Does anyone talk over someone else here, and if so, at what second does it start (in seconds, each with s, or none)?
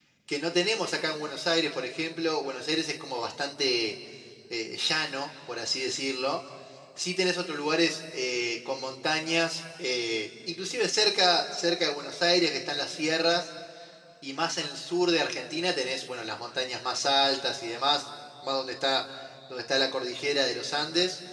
none